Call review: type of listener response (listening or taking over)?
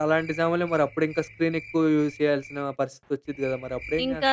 taking over